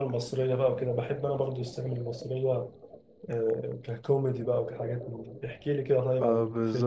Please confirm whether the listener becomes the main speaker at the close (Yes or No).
Yes